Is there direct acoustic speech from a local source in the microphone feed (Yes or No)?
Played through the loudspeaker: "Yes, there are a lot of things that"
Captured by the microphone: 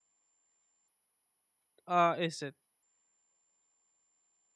Yes